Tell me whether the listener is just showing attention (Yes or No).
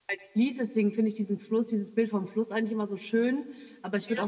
Yes